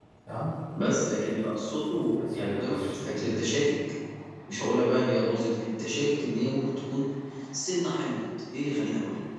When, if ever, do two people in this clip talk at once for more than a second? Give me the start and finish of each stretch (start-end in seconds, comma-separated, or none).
2.1-3.5